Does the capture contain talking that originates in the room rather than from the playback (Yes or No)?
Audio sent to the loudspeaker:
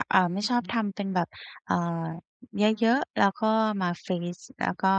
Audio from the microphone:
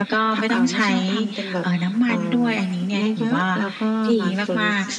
Yes